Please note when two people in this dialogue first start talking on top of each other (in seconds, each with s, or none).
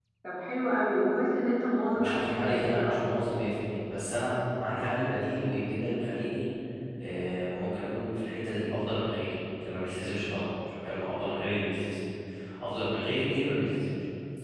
1.9 s